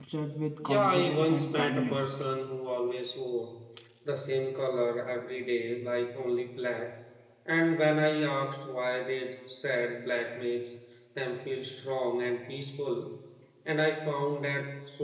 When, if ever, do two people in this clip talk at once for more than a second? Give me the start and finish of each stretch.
0.6-2.1

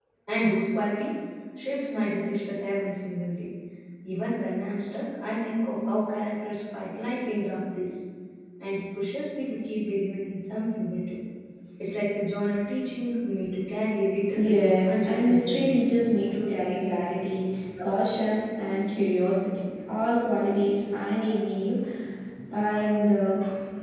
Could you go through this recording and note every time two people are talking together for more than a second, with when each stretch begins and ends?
14.4-15.8

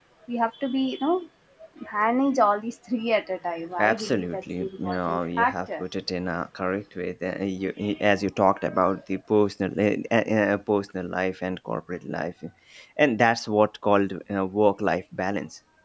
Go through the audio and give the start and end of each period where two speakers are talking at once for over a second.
3.8-5.8

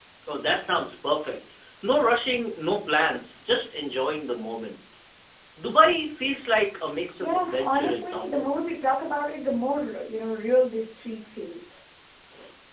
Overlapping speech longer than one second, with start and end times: 7.2-8.5

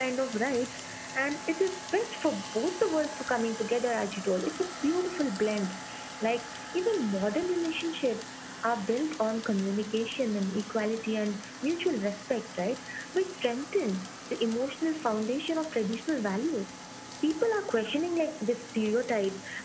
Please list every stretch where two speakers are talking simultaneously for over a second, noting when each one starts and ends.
none

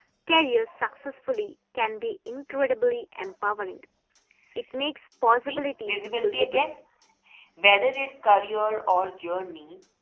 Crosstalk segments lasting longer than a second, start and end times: 5.4-6.6

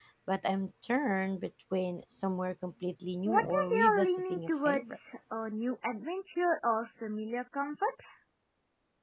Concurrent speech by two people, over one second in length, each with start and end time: 3.2-5.0

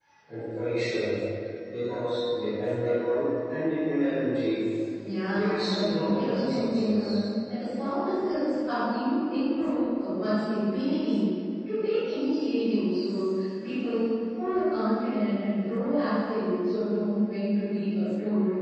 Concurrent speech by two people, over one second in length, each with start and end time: 5.3-7.2

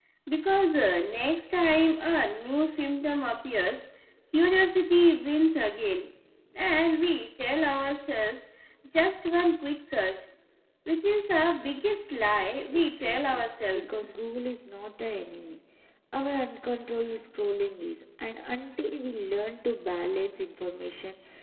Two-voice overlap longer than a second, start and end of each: 12.7-14.0

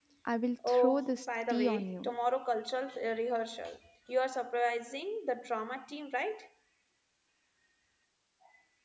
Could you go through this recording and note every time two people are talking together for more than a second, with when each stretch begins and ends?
0.7-2.1

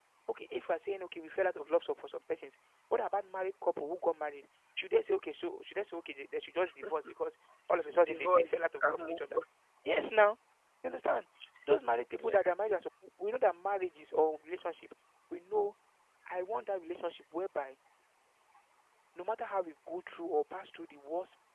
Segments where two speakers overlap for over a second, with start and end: 8.0-9.4

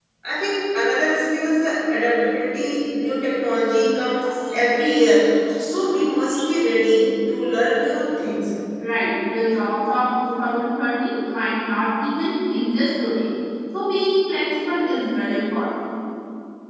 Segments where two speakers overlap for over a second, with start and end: none

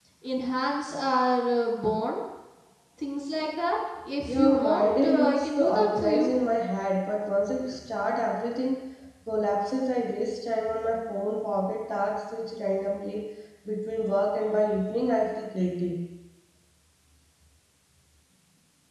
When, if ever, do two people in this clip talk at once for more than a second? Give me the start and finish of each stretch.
4.3-6.3

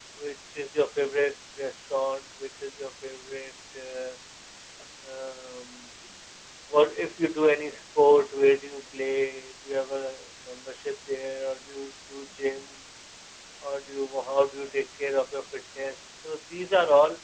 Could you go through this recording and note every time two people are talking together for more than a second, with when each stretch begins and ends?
none

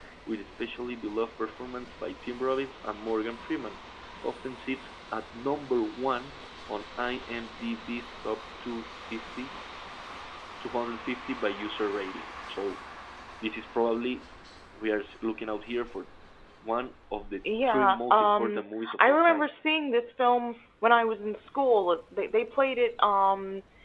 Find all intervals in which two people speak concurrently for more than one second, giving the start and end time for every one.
17.7-19.5

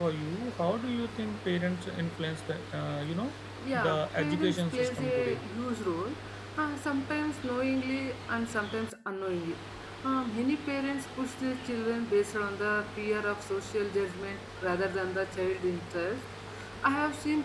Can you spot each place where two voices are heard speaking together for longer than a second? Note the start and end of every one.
3.9-5.4

